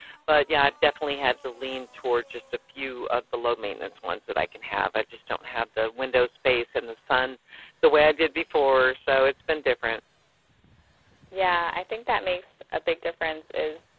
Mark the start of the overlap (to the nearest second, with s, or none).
none